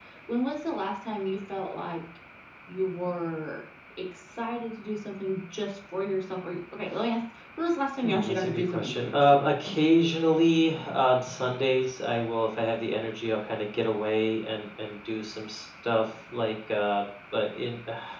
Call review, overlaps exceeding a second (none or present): present